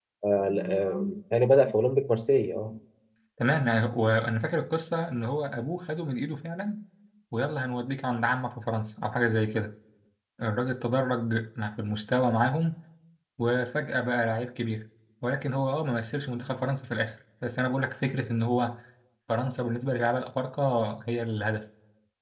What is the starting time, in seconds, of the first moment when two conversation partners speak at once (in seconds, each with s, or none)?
none